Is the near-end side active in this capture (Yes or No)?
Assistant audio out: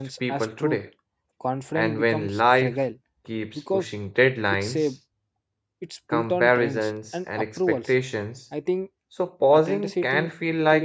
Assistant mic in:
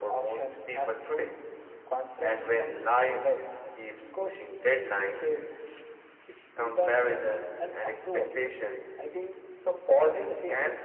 No